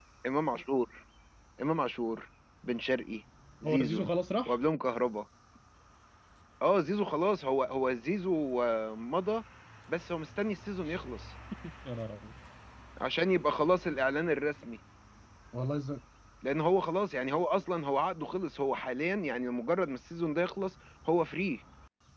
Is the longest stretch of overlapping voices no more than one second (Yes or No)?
Yes